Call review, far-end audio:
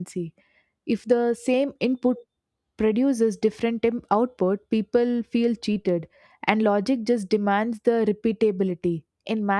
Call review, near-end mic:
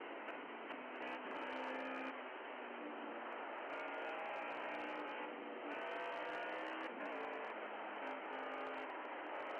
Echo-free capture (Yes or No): Yes